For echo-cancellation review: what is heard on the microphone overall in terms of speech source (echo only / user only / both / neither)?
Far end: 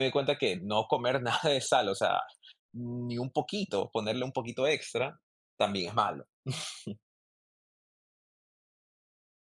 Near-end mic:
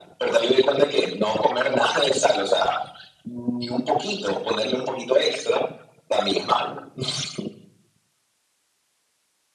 echo only